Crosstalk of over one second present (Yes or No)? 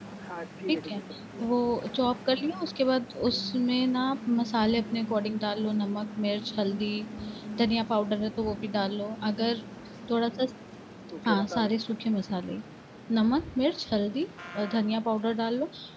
No